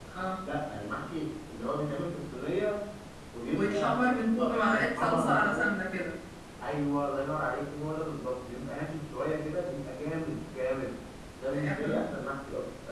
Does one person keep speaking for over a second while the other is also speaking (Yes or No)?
Yes